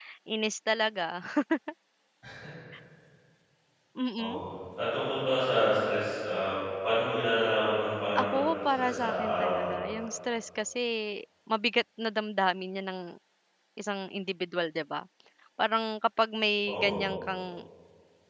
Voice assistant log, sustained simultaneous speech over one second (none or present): present